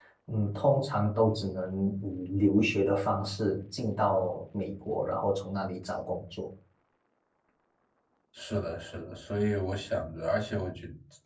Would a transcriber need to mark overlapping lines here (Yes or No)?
No